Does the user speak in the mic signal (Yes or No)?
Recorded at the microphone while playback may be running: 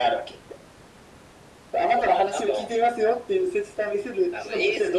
No